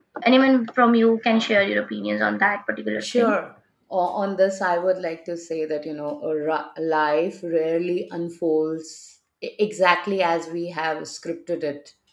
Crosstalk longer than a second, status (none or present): none